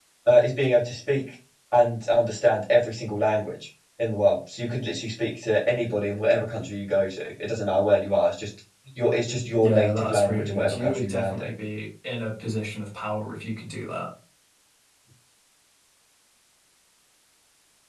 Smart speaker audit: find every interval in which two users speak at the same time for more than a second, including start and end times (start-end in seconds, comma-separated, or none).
9.5-11.5